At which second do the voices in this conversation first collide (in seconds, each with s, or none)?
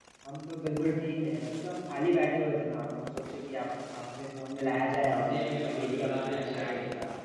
5.2 s